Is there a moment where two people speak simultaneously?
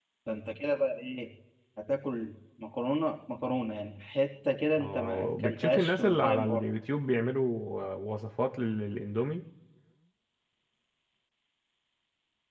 Yes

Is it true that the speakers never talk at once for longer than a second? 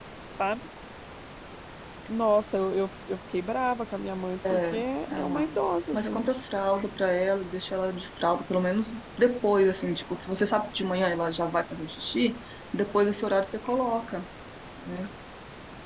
Yes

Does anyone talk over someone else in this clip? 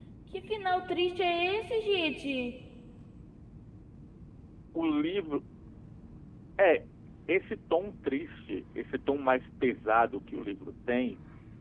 No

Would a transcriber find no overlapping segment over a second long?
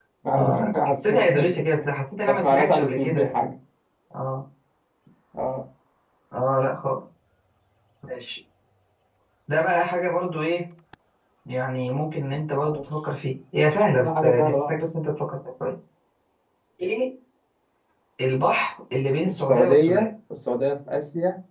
No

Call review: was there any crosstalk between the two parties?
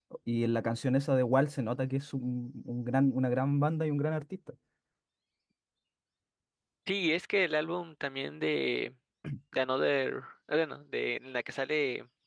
No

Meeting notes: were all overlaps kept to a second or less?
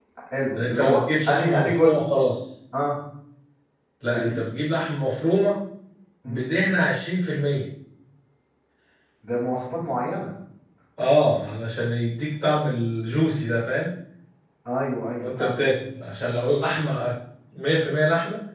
No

